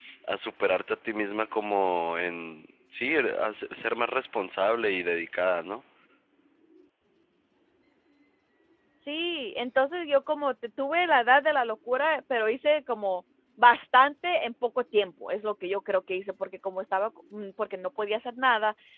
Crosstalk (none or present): none